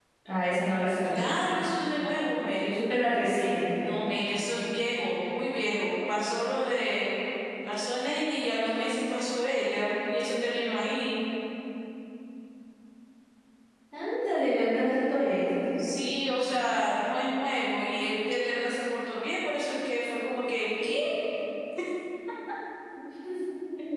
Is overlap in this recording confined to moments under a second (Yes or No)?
Yes